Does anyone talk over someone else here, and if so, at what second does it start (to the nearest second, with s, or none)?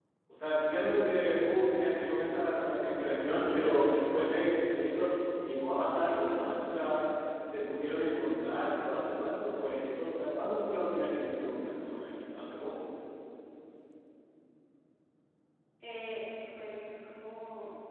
none